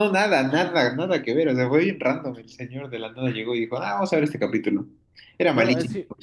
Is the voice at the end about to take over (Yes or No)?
Yes